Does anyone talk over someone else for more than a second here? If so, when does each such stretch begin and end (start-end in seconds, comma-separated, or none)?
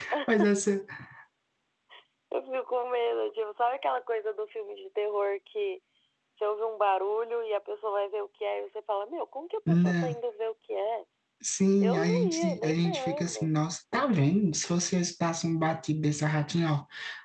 11.8-13.5